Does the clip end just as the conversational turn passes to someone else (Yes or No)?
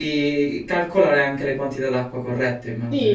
Yes